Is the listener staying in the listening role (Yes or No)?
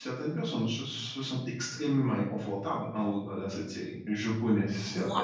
No